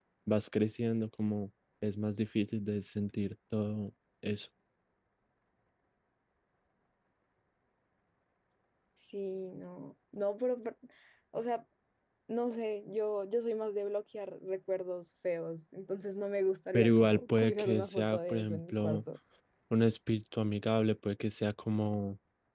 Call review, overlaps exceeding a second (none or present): present